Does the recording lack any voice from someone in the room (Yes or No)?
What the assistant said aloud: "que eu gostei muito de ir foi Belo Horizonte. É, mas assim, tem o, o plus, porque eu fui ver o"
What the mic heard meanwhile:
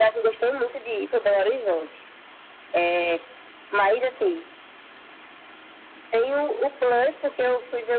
Yes